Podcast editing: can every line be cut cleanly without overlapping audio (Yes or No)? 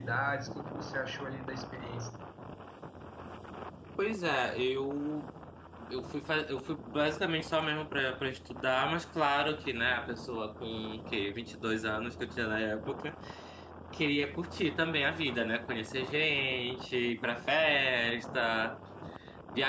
Yes